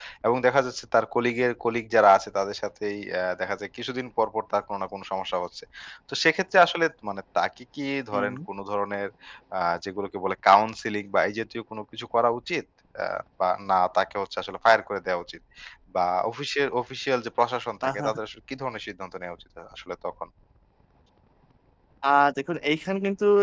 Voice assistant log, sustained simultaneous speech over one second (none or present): none